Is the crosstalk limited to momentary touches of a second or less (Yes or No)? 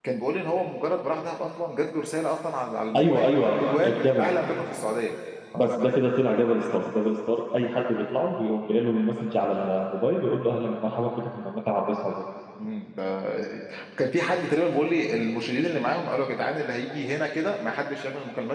No